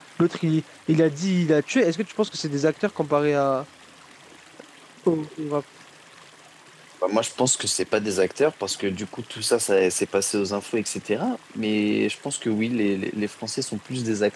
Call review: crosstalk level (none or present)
none